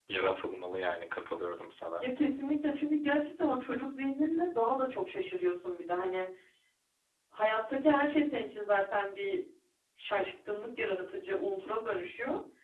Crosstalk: none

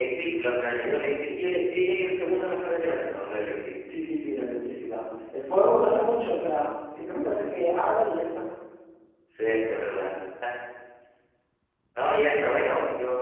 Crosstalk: none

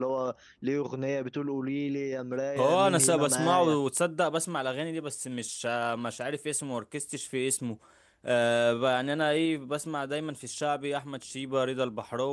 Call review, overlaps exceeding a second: present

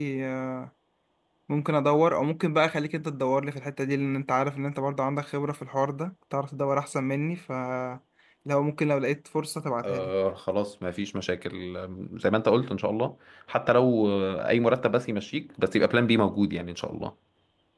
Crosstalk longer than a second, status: none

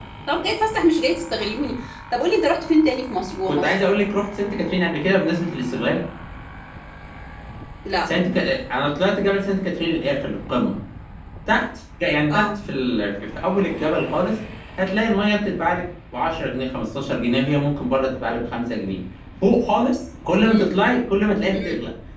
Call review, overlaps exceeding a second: none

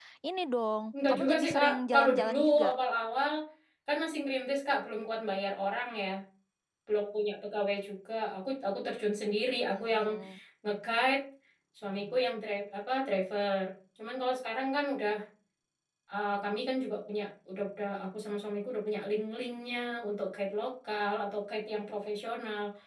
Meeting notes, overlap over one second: present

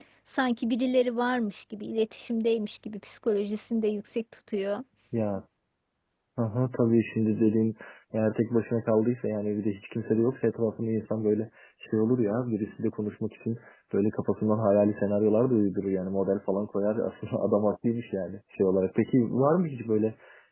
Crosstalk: none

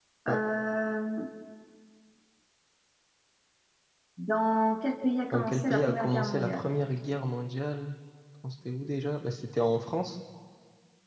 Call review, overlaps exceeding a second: present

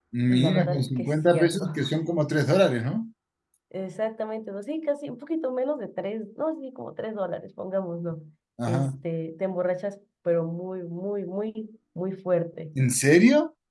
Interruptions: present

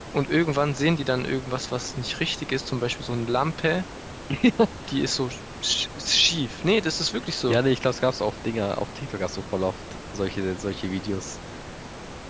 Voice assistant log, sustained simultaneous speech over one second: none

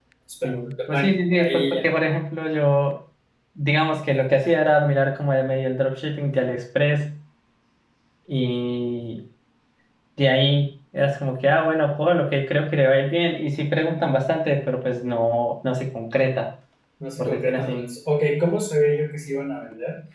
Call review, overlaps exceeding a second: present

